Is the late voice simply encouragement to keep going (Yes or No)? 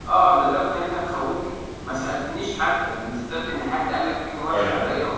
No